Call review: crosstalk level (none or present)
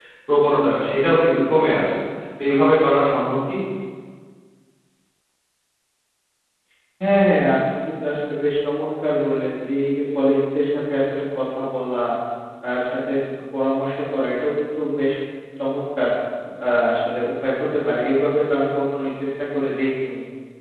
none